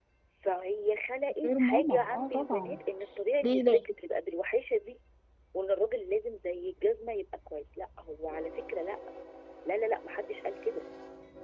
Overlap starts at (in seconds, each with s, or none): 1.4 s